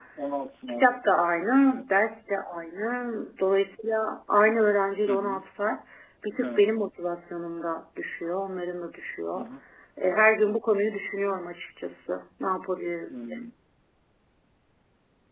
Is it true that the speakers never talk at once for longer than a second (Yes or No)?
Yes